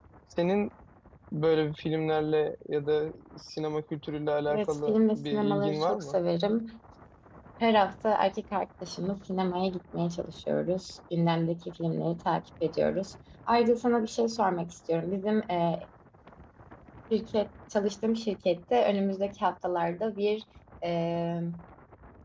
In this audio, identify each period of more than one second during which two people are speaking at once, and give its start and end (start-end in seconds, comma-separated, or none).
4.5-6.2